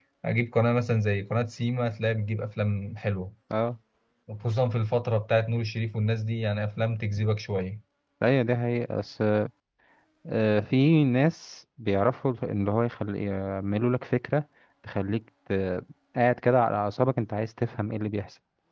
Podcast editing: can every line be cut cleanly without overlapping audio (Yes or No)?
Yes